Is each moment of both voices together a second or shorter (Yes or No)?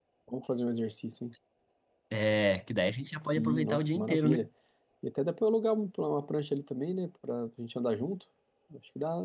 No